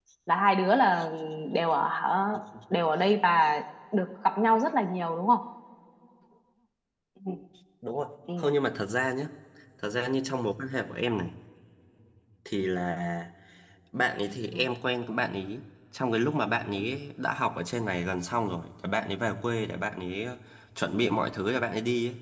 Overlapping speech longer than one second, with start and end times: none

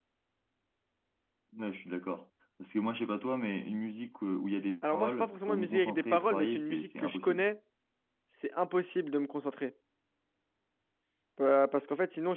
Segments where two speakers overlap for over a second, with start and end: 4.9-7.4

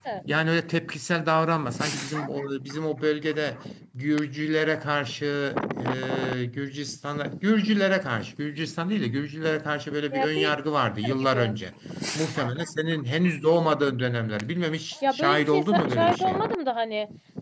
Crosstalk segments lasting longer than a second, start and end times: 15.1-16.4

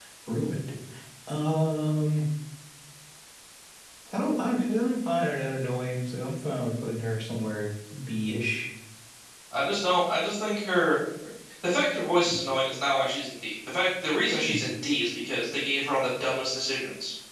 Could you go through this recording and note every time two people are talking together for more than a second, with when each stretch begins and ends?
none

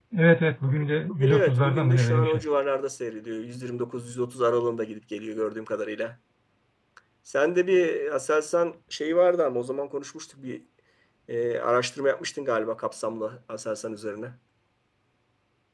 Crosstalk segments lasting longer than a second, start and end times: 1.2-2.4

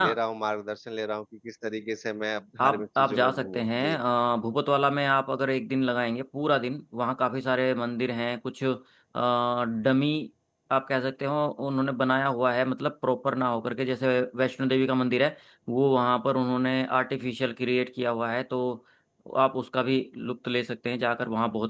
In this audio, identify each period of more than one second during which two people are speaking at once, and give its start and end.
2.6-4.0

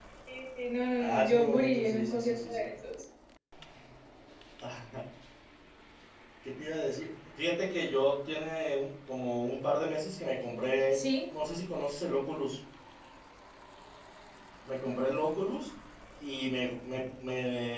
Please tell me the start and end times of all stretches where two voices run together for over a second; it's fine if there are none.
1.0-2.7

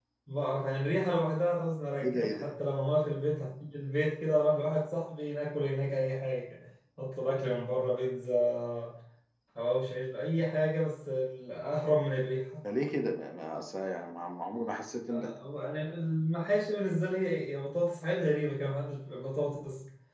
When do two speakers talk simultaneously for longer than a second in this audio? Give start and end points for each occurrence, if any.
none

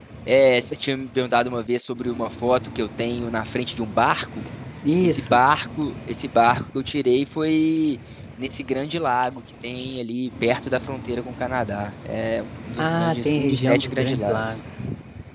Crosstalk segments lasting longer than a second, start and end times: 12.8-14.6

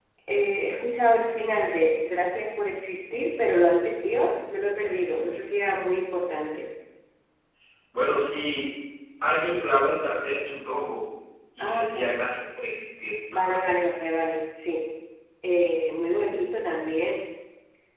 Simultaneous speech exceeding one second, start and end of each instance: none

